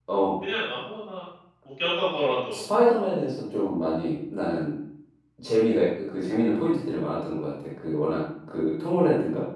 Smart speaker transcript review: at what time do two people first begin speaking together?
none

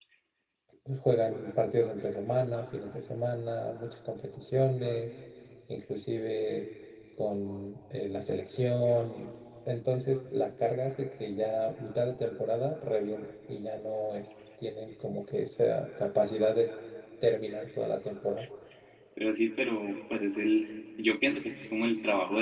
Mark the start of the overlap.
none

